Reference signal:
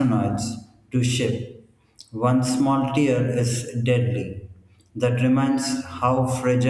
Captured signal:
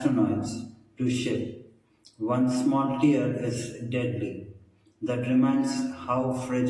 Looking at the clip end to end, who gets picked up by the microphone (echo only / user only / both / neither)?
echo only